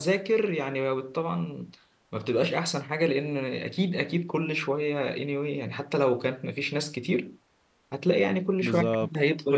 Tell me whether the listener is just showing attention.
No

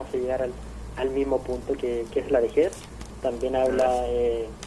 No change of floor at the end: Yes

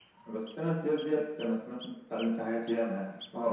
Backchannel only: No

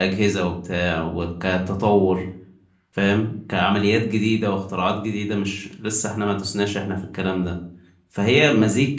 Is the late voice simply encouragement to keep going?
Yes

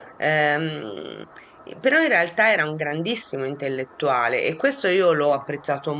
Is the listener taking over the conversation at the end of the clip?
No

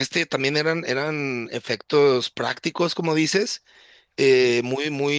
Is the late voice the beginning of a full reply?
No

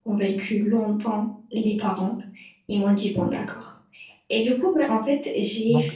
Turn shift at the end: Yes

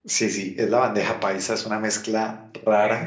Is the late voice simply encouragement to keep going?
Yes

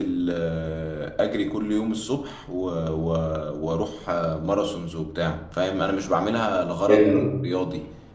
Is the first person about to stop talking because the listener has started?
No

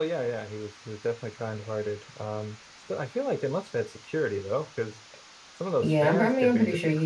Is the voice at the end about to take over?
Yes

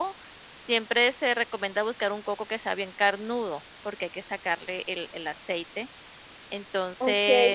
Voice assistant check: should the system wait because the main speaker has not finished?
No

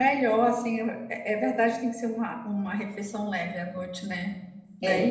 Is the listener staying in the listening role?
No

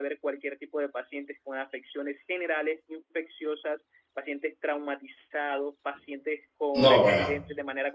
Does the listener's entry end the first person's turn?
No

